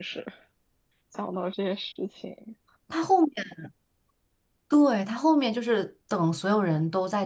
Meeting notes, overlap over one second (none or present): none